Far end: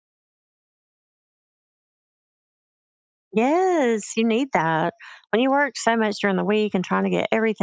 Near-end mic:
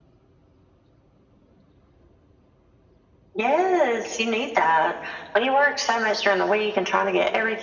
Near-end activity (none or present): none